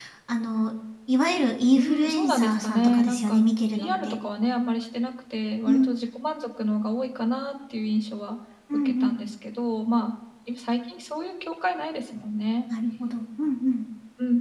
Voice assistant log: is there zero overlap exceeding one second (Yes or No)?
No